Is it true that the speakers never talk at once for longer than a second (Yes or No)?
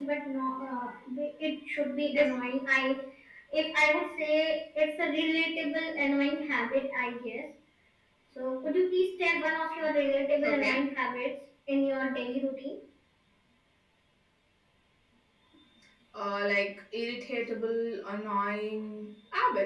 Yes